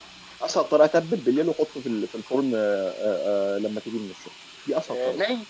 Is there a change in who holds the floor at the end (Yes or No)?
Yes